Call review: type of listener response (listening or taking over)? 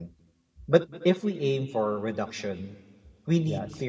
listening